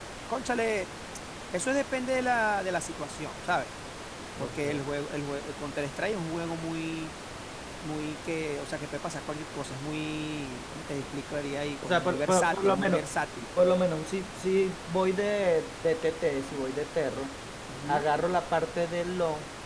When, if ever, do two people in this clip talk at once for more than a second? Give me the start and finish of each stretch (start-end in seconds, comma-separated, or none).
11.8-13.0